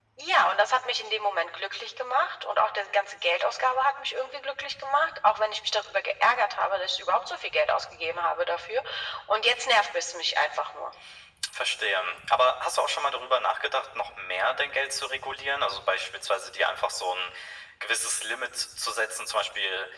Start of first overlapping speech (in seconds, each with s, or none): none